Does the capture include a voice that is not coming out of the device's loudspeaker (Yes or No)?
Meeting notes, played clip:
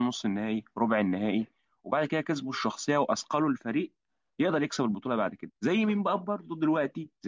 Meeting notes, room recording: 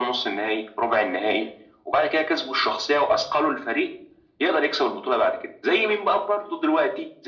No